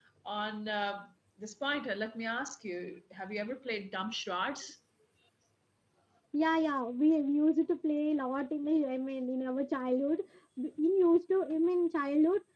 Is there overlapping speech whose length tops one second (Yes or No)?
No